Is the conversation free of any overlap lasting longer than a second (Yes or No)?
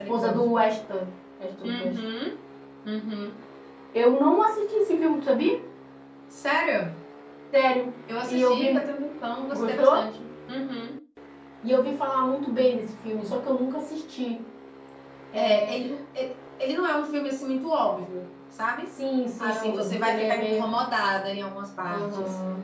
No